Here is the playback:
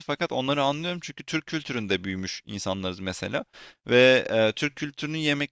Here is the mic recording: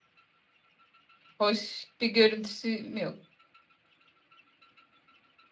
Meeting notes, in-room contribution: present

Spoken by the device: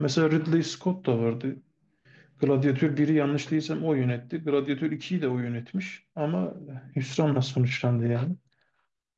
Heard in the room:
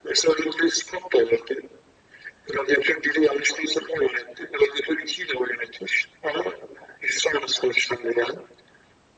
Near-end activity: none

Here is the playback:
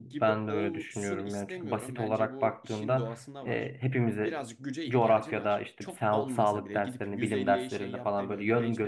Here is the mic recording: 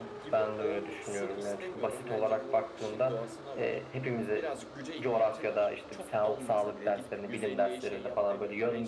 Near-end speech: none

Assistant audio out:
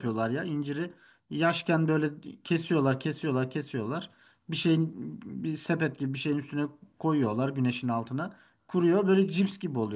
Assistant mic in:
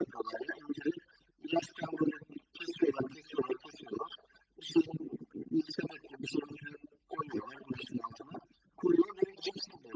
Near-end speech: none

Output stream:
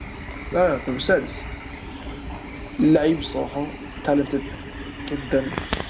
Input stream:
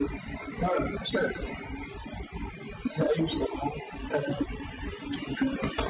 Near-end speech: none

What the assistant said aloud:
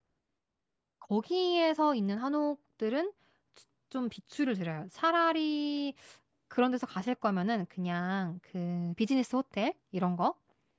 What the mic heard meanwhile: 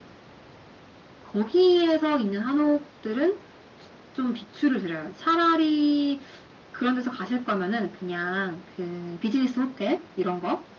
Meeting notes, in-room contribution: none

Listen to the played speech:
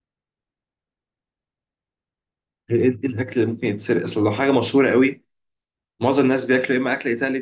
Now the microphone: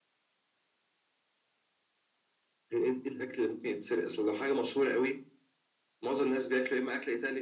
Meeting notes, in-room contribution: none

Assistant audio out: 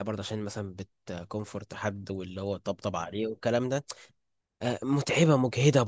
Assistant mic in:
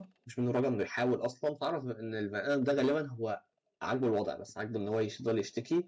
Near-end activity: present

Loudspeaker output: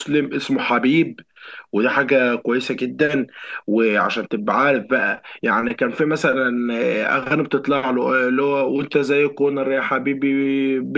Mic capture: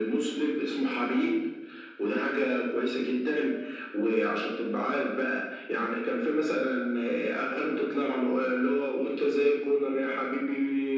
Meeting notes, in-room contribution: none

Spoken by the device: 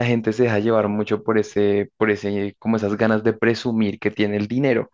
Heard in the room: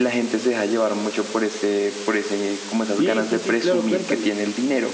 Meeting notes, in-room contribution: present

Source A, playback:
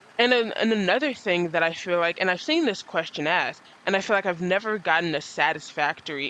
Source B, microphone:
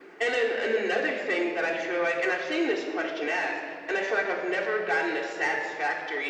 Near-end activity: none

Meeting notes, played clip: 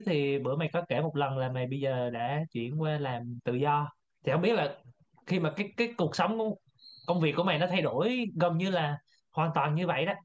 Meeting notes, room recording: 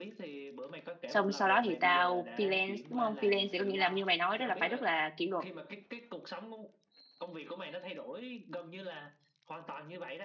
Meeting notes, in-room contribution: present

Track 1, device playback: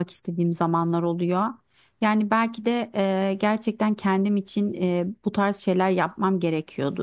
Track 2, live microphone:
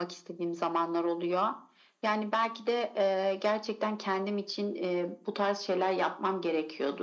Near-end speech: none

